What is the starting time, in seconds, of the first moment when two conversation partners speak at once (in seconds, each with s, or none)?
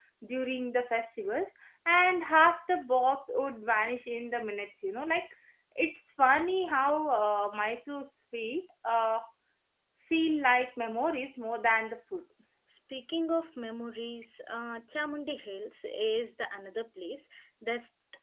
none